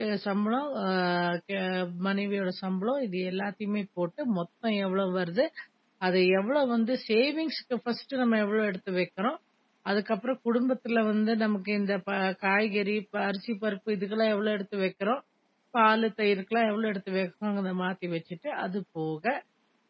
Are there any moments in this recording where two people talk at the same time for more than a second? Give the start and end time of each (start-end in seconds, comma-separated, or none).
none